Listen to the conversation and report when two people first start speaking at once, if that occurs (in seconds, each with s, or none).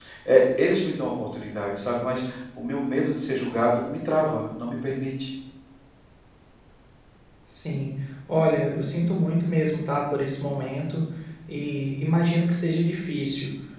none